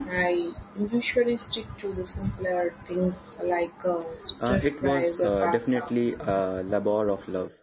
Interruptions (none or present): present